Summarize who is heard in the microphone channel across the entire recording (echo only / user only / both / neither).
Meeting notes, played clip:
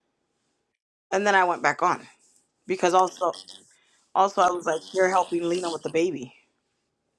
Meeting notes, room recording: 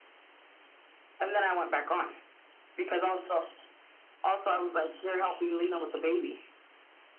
echo only